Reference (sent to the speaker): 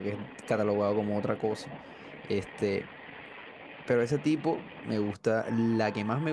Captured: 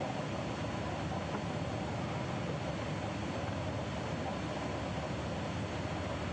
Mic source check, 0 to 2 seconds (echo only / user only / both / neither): neither